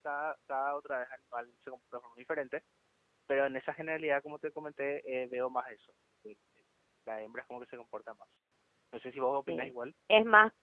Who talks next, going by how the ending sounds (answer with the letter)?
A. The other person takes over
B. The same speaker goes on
A